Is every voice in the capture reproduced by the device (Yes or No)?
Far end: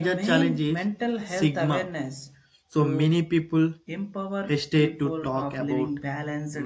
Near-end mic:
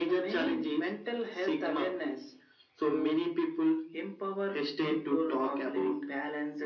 Yes